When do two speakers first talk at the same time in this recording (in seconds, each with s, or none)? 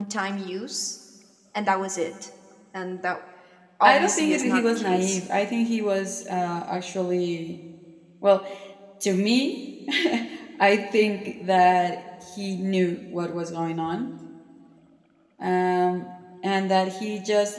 3.8 s